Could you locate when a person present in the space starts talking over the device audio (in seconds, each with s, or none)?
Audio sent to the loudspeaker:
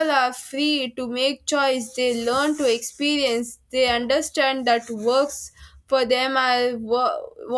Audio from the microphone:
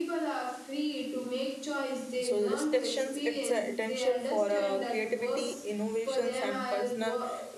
2.2 s